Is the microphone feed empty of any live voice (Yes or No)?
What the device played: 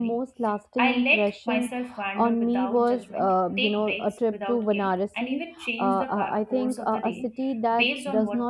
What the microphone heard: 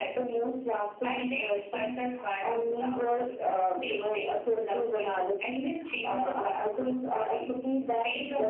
Yes